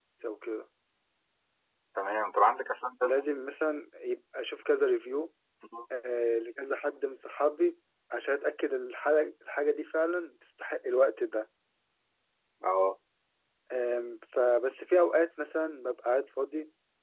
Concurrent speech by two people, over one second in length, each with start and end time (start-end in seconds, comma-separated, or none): none